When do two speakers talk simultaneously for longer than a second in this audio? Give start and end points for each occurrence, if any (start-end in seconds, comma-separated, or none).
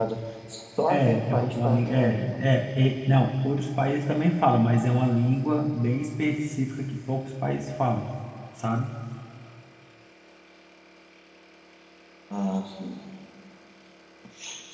0.9-2.4